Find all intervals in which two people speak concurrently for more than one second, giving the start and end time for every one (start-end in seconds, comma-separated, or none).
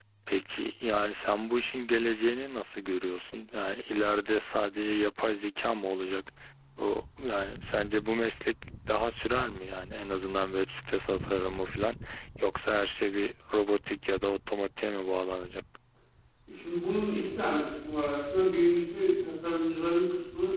none